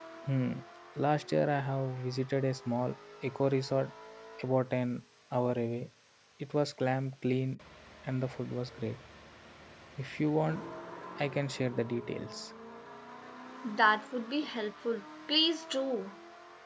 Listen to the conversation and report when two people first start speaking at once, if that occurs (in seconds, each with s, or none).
none